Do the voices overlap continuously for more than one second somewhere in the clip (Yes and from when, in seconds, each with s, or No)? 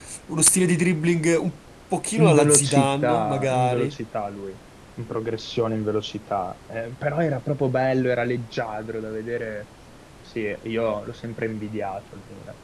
Yes, from 2.2 s